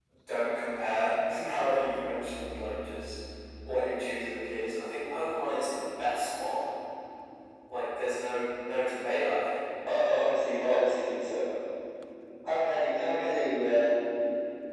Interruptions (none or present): none